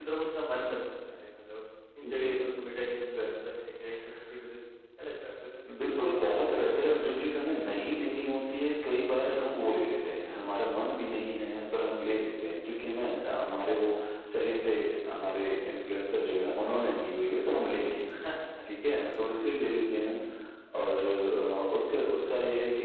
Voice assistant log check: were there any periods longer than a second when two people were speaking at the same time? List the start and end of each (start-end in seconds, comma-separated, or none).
5.8-7.3